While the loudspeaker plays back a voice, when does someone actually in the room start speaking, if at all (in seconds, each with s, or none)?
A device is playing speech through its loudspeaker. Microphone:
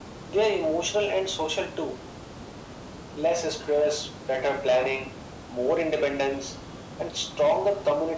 none